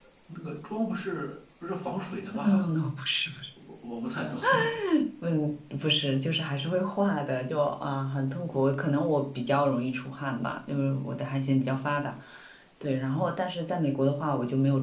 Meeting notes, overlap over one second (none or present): none